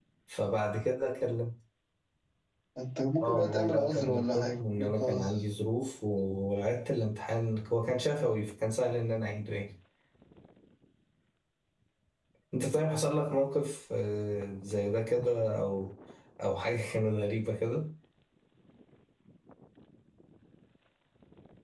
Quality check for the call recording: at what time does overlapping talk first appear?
3.2 s

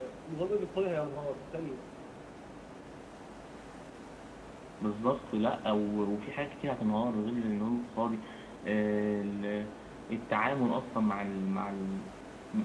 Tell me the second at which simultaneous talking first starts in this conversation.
none

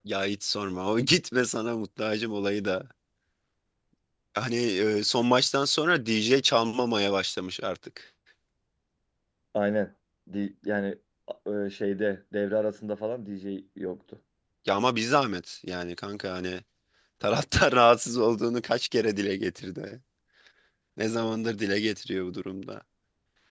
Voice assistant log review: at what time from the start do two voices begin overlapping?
none

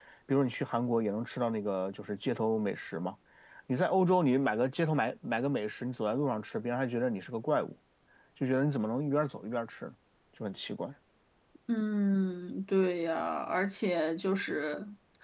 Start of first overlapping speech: none

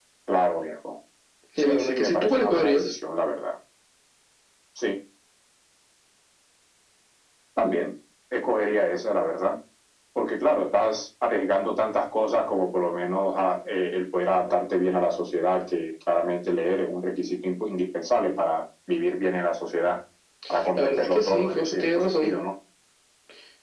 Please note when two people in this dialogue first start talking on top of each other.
1.6 s

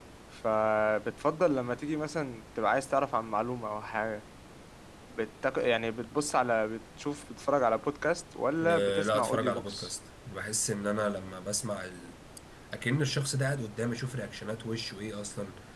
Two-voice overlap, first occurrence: 8.6 s

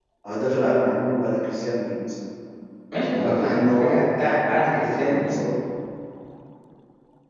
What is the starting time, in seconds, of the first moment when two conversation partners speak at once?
3.1 s

